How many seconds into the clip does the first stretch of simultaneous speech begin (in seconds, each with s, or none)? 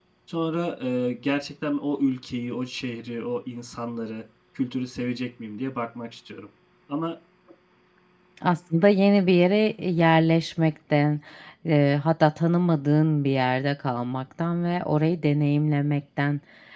none